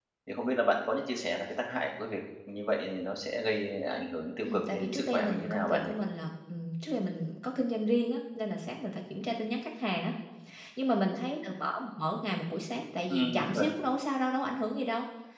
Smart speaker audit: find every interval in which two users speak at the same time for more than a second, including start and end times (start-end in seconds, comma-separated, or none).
4.4-5.9